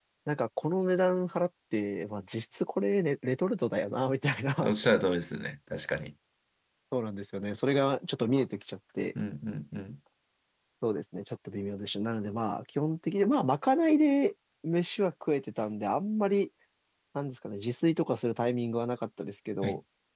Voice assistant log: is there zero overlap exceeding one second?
Yes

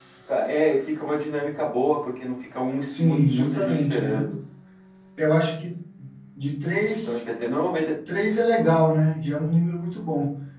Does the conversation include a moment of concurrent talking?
Yes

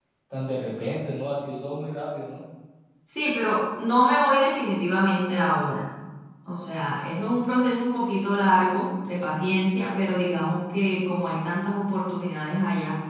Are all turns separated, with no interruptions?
Yes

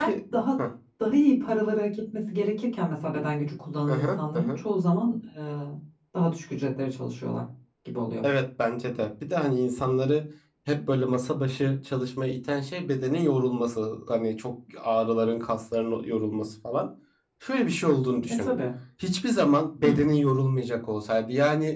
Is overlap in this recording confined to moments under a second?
Yes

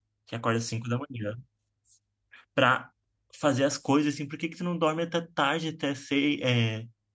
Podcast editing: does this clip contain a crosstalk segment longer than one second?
No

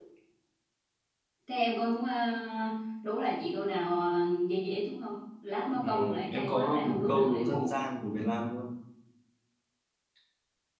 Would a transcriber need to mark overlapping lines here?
Yes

